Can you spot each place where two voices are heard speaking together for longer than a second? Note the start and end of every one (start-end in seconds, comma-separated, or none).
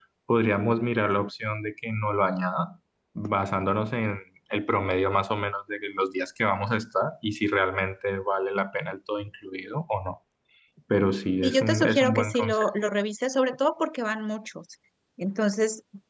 11.4-12.7